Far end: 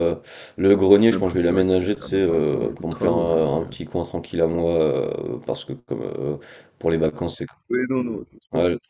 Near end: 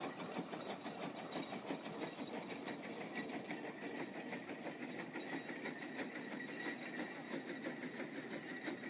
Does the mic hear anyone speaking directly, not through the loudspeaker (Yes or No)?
No